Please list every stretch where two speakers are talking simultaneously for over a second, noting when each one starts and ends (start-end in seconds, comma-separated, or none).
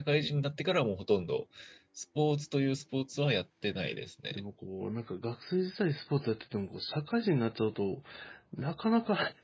none